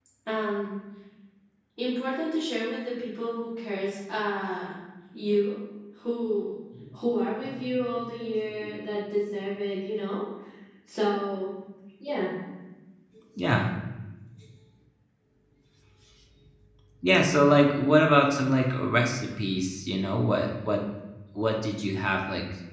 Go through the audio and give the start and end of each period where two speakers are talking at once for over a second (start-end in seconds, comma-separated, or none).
none